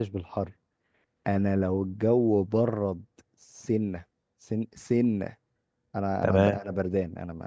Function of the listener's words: listening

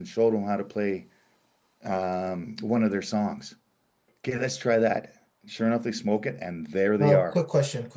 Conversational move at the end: taking over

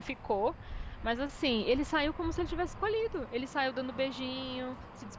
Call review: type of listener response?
listening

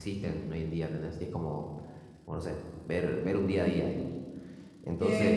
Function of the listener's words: taking over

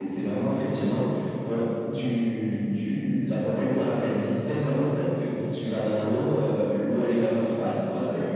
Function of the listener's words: listening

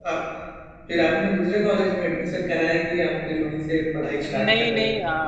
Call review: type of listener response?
taking over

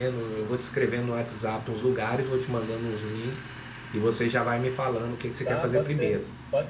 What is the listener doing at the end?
taking over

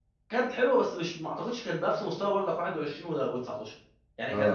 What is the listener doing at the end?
listening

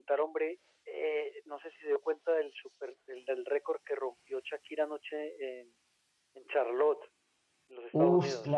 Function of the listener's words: taking over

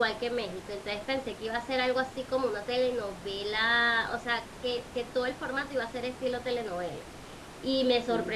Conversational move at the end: listening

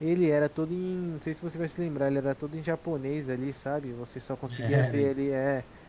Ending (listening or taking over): listening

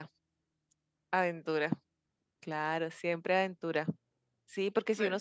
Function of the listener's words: listening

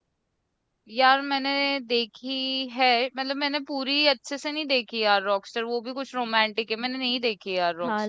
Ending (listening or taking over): taking over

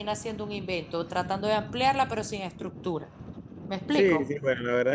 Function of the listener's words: taking over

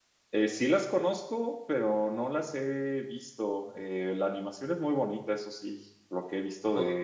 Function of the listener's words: listening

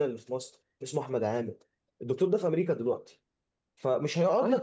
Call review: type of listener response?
listening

